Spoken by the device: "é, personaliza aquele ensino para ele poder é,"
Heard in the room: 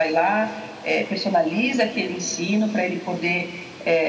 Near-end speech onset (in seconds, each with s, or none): none